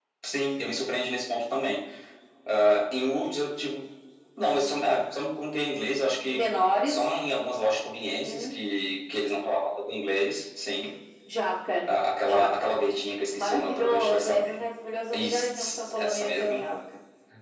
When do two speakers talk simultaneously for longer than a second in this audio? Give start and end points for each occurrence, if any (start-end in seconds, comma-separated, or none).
13.3-14.6, 15.1-16.6